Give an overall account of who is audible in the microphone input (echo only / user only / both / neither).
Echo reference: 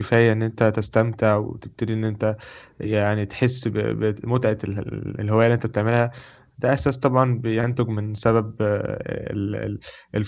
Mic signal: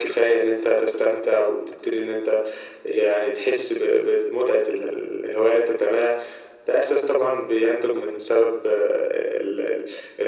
echo only